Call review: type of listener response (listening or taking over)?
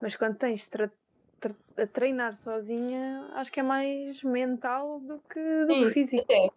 taking over